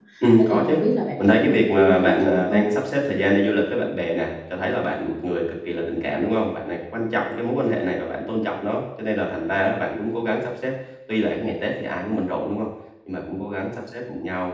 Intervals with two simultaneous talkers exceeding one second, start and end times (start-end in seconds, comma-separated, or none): 1.2-2.6